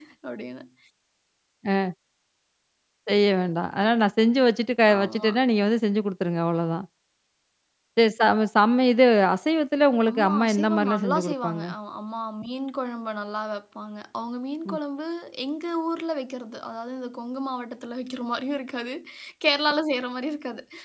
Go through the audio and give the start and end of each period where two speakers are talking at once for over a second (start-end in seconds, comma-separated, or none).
10.1-11.6